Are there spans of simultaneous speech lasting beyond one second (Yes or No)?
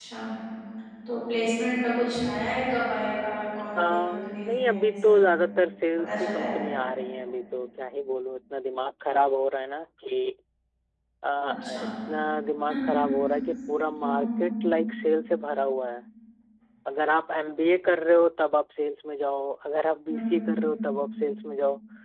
Yes